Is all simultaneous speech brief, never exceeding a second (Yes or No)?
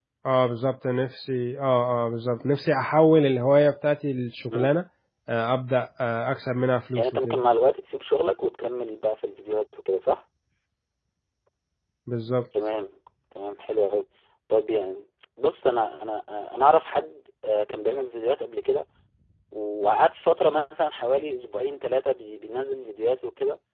Yes